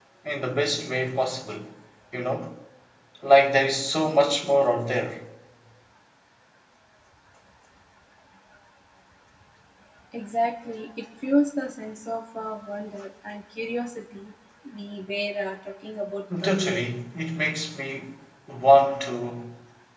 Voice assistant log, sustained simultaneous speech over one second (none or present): none